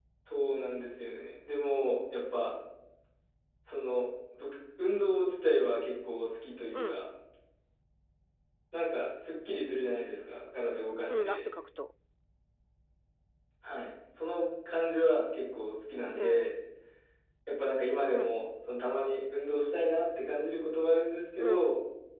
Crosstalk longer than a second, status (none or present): none